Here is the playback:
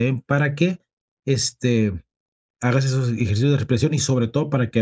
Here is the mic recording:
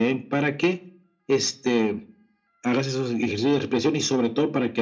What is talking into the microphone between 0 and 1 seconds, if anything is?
echo only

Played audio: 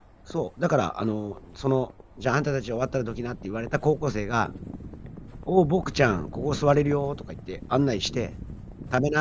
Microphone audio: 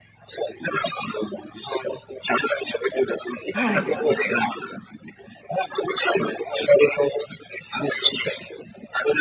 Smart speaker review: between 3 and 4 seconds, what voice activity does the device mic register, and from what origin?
both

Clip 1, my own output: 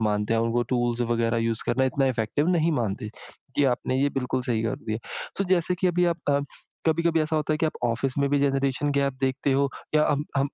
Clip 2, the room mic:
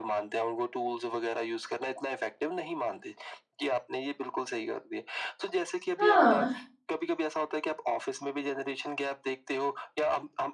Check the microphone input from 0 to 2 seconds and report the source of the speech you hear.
echo only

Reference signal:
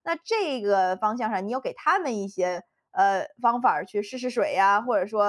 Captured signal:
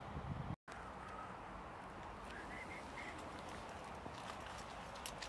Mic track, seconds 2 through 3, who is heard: neither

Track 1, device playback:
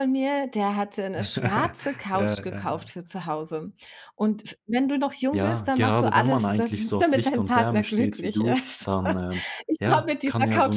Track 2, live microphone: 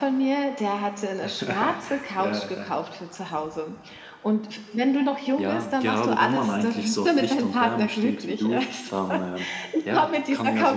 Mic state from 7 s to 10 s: echo only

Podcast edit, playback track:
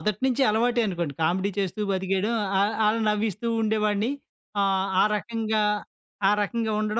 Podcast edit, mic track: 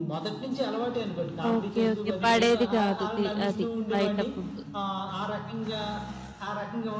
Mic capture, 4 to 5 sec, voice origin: both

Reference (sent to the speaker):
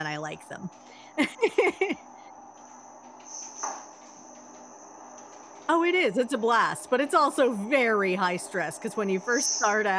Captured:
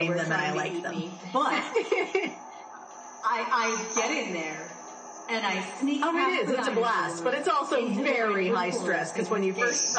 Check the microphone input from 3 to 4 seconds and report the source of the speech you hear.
user only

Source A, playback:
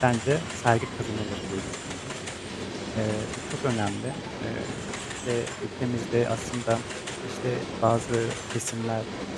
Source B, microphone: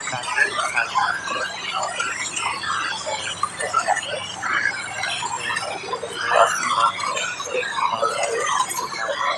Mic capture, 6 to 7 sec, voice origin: echo only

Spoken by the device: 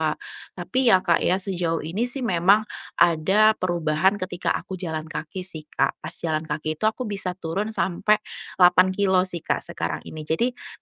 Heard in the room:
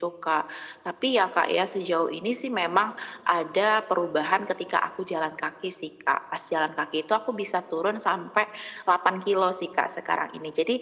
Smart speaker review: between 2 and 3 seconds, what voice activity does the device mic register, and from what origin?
echo only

